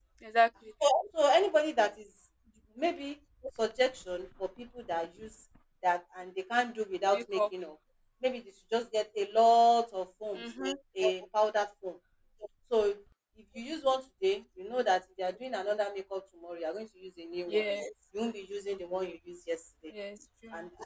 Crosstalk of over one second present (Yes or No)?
No